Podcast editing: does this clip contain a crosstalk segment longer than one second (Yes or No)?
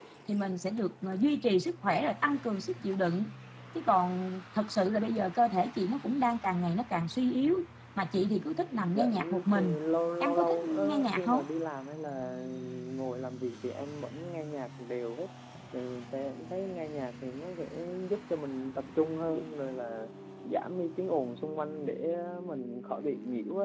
Yes